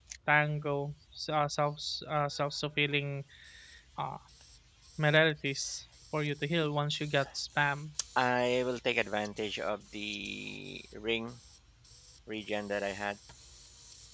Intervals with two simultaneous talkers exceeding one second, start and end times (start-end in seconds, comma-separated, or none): none